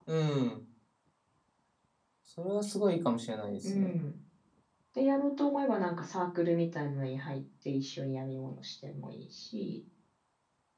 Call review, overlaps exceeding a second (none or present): none